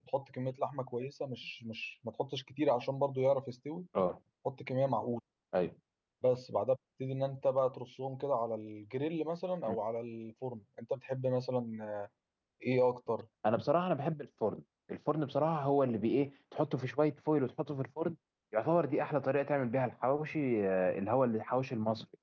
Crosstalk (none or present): none